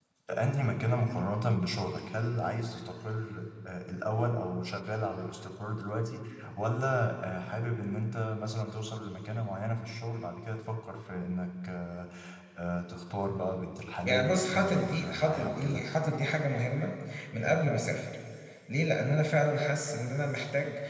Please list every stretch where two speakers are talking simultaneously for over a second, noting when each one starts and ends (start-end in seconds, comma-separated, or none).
14.0-15.8